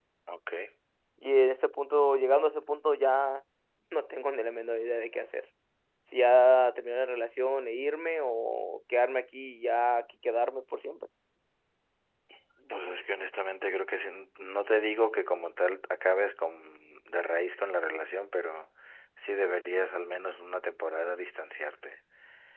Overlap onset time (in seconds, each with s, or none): none